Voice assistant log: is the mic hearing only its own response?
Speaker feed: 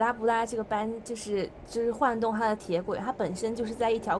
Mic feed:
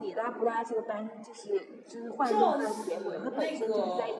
No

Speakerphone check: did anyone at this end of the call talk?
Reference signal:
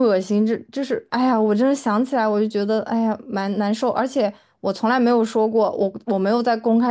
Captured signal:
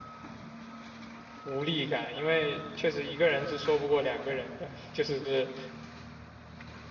Yes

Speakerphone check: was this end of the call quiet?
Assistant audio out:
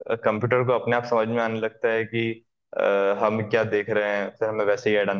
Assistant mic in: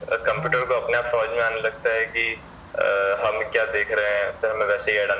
No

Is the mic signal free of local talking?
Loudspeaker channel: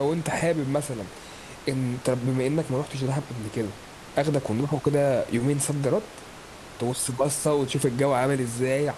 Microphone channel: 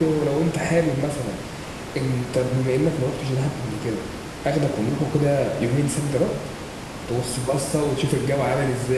Yes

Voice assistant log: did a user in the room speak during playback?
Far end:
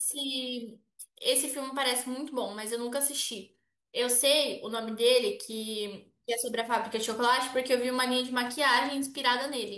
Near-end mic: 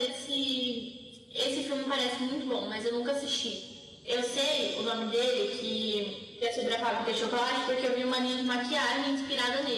No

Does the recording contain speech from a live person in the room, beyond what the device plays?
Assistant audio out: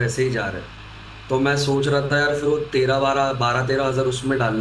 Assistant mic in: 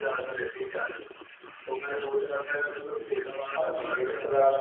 Yes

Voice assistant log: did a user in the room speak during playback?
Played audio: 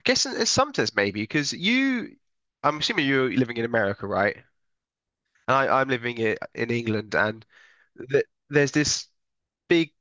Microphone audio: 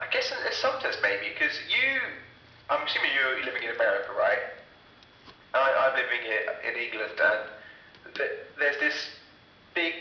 No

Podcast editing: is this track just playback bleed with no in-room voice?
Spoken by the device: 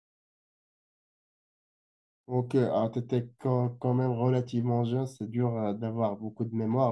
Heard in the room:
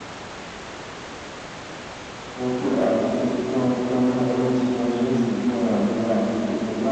Yes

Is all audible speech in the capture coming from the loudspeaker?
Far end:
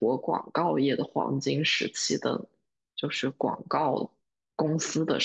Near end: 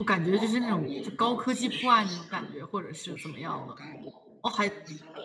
No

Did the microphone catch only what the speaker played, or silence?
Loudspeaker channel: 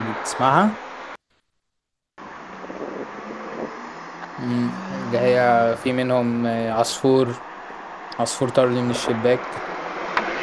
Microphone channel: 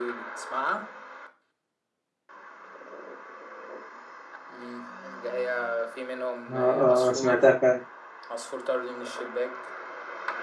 No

